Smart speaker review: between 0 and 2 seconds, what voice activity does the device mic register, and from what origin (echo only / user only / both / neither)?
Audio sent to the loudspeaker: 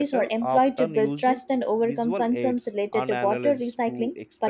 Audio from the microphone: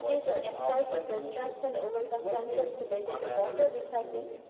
echo only